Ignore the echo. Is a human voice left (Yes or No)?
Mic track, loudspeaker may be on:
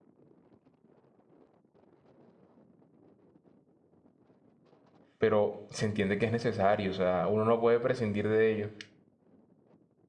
Yes